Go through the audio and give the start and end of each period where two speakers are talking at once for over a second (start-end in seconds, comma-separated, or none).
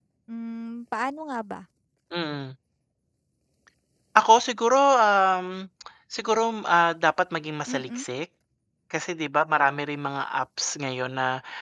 none